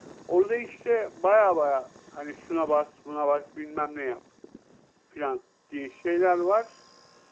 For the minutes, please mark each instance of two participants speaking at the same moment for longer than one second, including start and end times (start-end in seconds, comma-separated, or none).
none